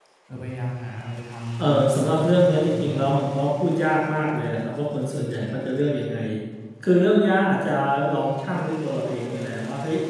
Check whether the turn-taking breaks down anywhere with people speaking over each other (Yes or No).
Yes